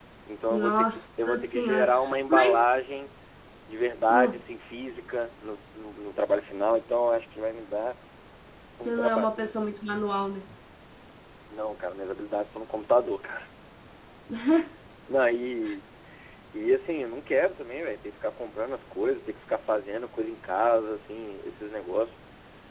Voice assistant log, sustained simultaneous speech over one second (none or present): present